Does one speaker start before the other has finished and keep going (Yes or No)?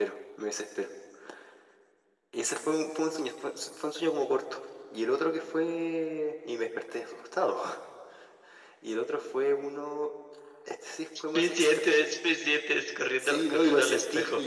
Yes